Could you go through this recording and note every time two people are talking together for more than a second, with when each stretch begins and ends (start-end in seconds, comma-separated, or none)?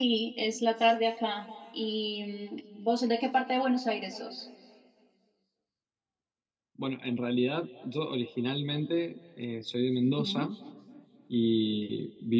none